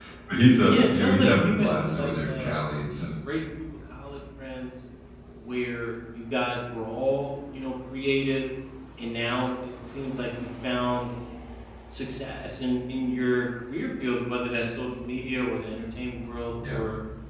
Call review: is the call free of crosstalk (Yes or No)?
No